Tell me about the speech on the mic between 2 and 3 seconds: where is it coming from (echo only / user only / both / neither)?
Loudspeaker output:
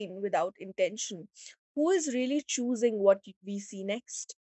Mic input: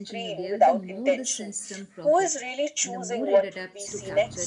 both